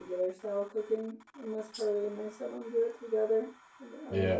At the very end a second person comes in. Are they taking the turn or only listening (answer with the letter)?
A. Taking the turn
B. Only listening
A